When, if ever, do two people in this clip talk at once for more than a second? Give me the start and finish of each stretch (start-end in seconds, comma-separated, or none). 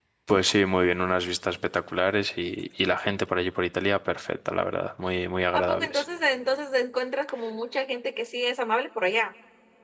none